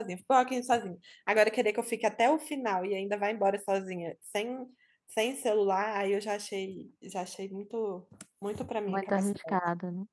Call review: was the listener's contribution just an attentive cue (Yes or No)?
No